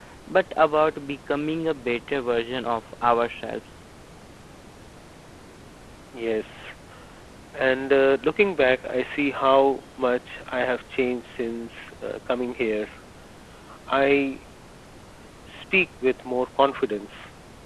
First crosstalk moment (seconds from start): none

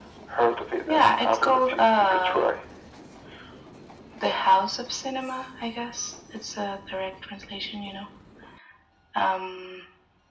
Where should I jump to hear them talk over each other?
0.9 s

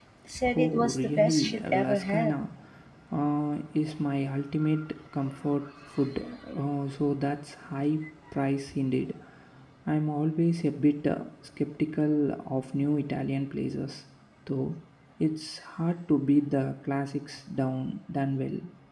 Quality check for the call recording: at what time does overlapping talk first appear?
0.6 s

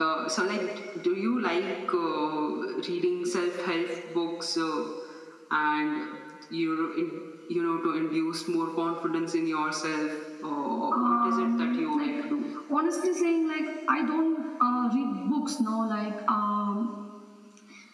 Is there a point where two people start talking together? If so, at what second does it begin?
10.9 s

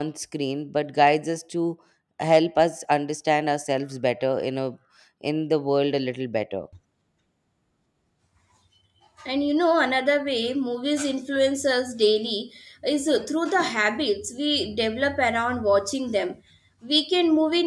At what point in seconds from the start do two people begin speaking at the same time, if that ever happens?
none

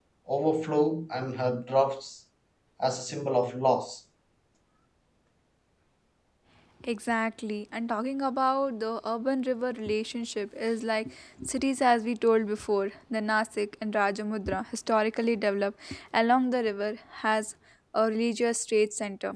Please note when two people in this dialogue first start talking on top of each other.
none

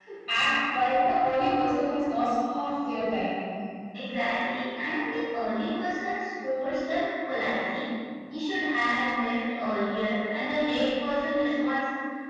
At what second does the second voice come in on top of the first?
none

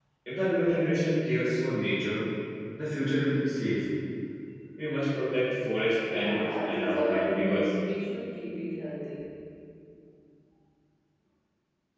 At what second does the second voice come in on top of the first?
6.0 s

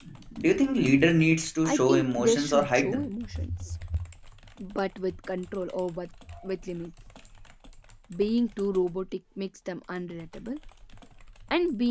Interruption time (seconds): 1.6 s

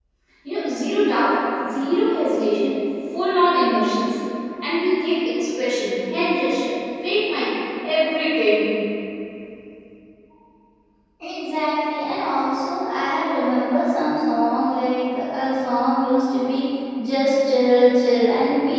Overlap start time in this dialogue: none

